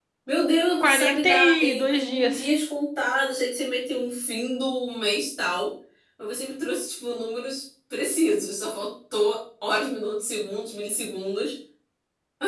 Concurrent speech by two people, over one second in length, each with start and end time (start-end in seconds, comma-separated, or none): 0.8-2.4